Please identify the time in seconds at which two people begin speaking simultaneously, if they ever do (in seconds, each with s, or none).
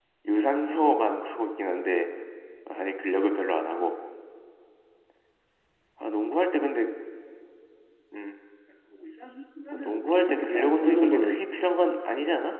9.7 s